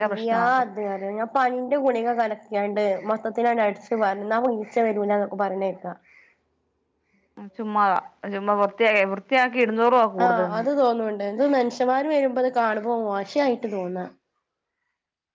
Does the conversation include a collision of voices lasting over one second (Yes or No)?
No